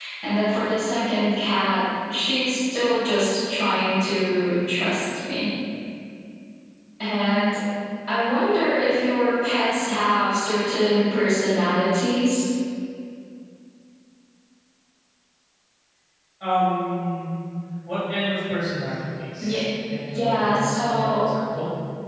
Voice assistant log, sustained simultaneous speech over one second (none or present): present